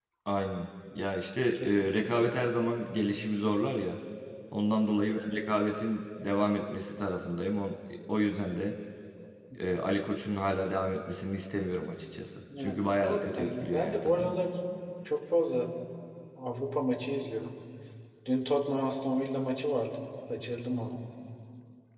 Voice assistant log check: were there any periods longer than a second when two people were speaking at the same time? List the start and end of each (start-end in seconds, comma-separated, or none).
12.6-14.3